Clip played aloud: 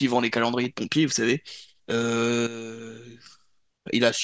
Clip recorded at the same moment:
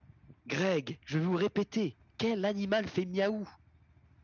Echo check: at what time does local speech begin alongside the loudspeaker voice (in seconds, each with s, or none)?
0.4 s